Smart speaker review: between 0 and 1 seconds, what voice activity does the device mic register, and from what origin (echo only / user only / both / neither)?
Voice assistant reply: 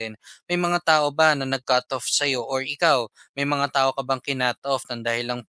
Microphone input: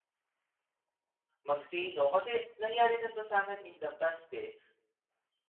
neither